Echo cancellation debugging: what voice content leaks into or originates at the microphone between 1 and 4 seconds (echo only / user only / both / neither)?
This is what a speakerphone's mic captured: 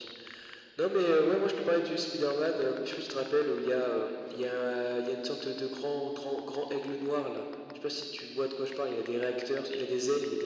echo only